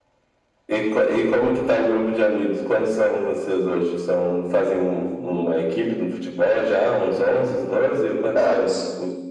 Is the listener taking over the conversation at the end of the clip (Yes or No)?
Yes